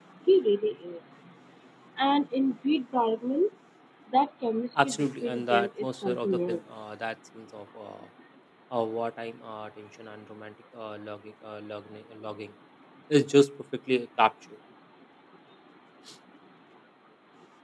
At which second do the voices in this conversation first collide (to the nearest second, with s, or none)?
5 s